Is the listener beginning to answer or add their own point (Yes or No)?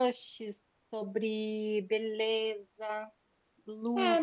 Yes